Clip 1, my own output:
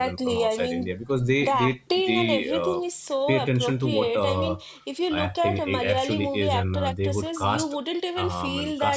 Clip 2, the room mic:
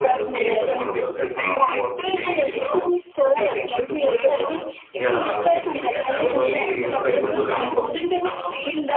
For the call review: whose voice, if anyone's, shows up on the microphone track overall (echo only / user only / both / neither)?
both